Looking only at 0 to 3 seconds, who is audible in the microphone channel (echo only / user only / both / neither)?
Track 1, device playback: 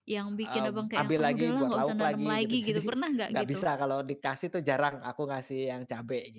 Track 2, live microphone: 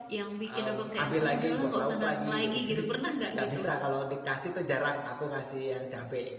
echo only